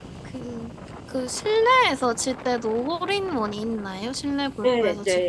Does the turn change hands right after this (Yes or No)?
Yes